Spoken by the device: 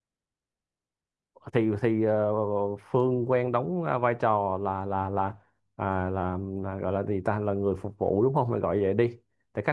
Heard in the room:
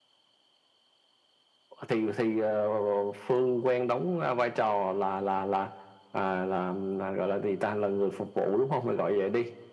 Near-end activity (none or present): none